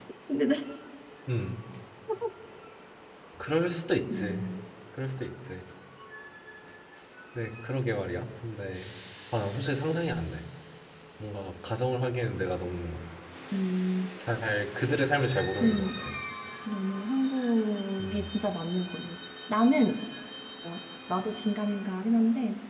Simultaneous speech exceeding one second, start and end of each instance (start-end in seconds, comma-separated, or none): none